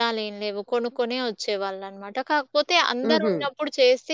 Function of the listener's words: listening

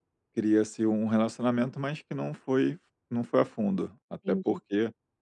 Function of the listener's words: listening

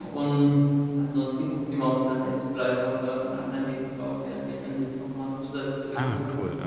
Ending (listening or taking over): taking over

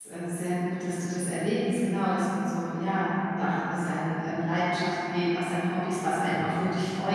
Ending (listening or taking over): listening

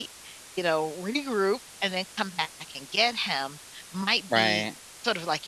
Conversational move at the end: listening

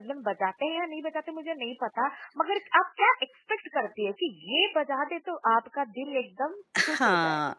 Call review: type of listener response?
taking over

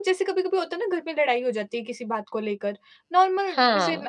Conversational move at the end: listening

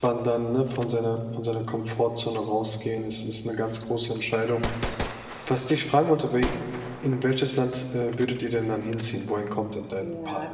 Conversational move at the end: taking over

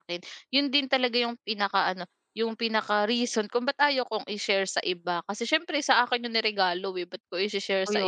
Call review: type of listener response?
taking over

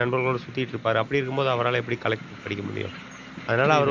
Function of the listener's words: listening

